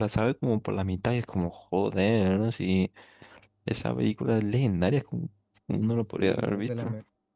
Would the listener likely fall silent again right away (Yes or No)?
No